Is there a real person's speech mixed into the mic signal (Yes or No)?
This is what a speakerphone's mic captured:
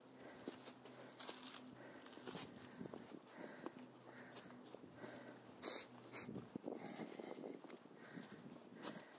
No